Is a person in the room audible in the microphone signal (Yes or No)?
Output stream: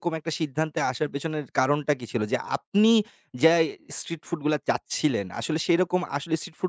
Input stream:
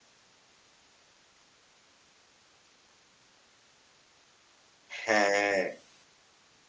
Yes